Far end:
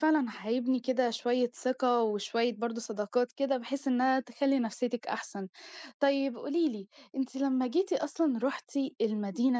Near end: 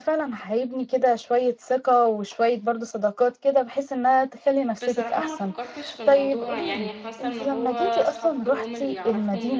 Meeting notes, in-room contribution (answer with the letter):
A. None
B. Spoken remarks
B